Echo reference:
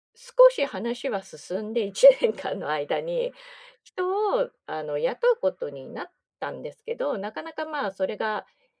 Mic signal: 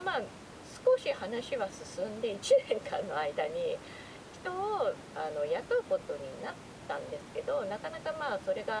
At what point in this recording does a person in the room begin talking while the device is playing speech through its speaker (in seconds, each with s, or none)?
none